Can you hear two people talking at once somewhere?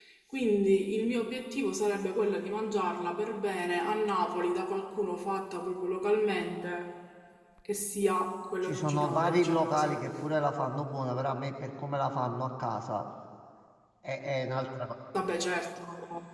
Yes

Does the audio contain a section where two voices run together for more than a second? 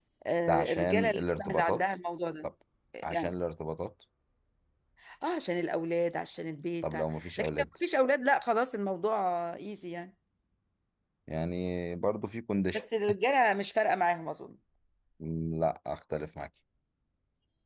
Yes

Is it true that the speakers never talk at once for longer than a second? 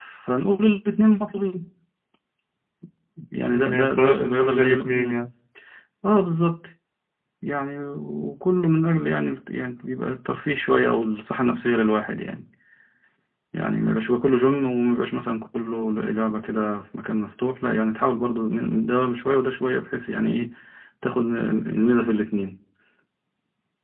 No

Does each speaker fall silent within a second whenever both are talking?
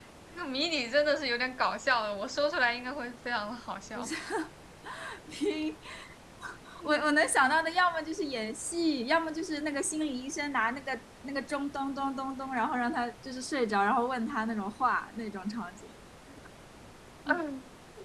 Yes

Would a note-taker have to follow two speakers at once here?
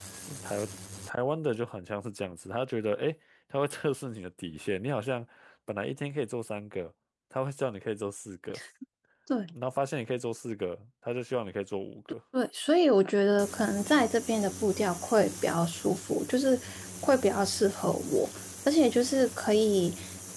No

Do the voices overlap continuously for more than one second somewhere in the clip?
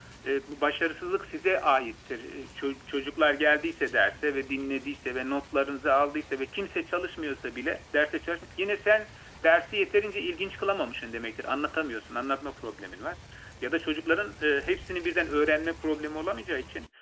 No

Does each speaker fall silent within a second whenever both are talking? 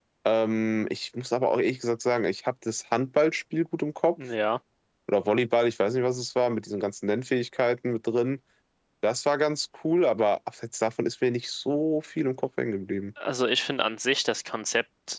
Yes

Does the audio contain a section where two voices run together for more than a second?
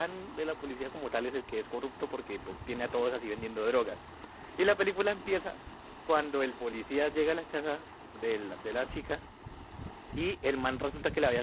No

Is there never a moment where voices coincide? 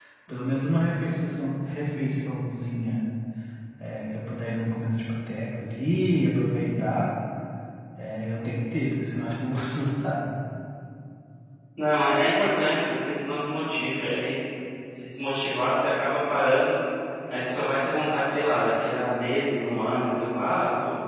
Yes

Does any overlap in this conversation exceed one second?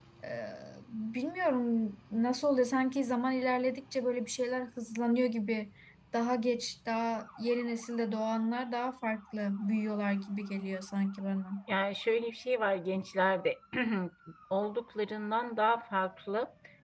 No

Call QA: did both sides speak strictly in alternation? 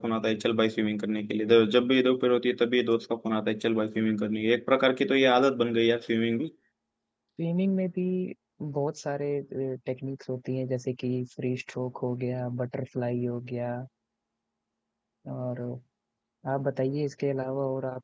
Yes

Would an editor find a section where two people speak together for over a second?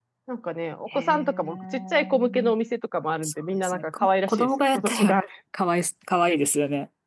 Yes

